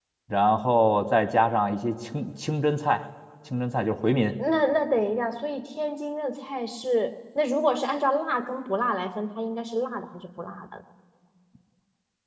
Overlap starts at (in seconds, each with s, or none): none